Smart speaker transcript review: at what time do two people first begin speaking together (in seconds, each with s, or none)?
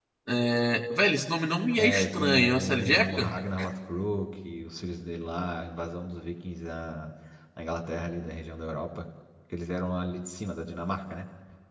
1.8 s